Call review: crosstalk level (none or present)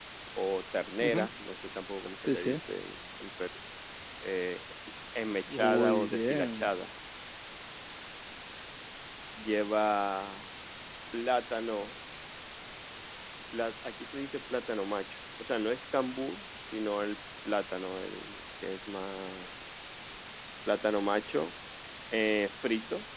present